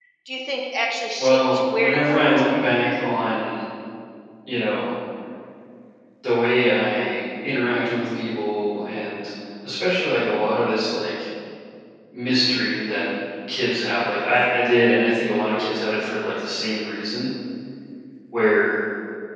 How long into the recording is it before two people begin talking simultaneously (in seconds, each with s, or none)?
1.2 s